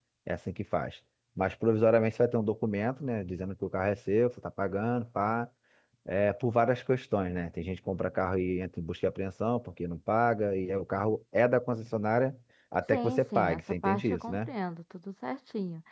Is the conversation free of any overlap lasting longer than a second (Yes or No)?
No